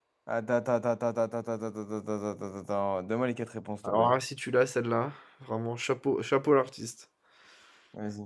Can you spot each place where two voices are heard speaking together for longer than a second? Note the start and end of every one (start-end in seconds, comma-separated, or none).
none